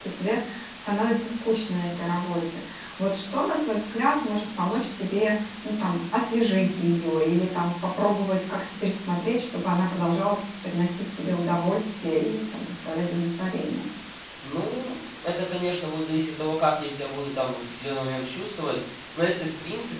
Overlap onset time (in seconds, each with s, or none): none